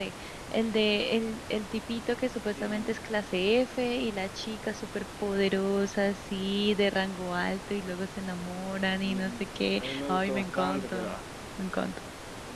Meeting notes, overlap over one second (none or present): present